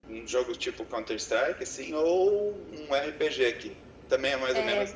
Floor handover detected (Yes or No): Yes